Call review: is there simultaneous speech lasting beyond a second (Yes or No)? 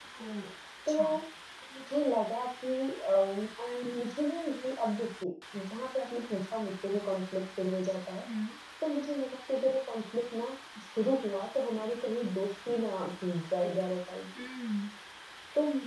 No